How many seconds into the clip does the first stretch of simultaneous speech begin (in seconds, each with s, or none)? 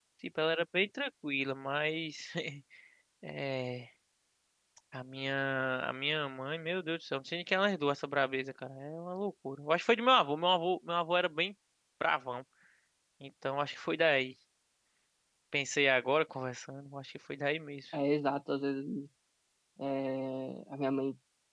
none